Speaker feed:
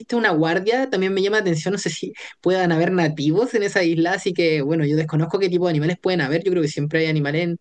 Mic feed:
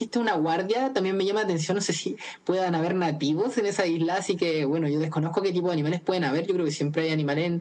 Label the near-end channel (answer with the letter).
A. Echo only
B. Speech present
A